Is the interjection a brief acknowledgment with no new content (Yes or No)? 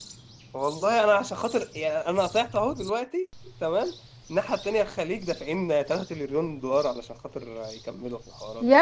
No